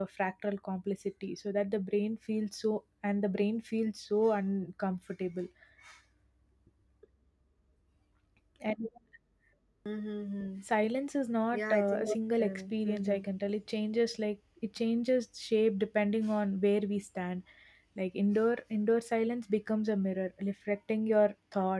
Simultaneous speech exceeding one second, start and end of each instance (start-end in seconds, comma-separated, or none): 11.5-13.2